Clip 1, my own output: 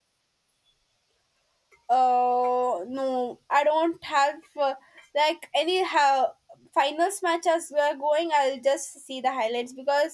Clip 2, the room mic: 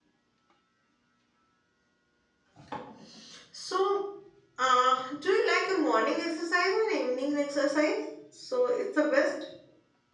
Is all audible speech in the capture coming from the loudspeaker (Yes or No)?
No